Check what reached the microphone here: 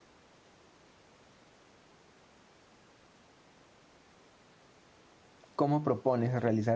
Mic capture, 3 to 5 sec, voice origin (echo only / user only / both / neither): neither